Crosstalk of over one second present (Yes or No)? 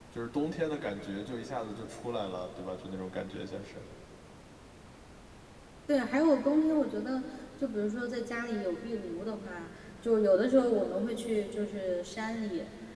No